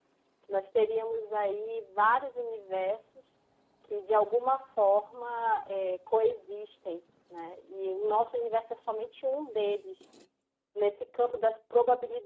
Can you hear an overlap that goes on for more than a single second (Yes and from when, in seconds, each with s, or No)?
No